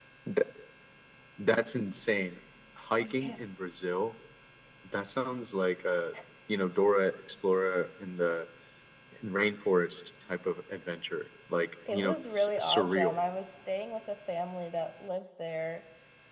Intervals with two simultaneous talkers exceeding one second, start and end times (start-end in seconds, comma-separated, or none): 11.9-13.2